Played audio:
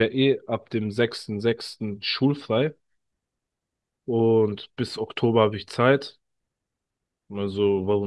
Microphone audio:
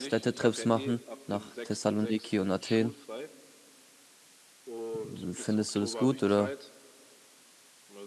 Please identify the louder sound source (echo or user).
user